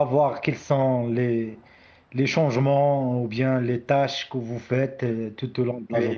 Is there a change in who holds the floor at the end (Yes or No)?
Yes